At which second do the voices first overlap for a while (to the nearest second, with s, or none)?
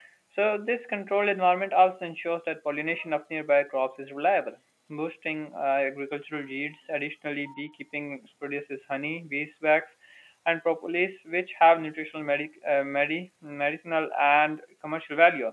none